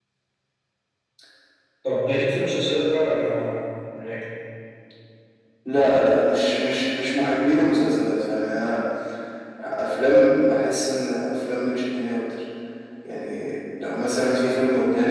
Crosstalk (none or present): none